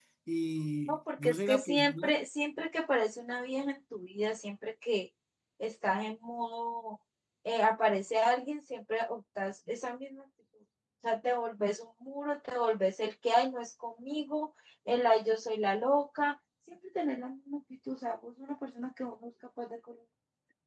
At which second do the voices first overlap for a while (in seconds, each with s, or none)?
0.9 s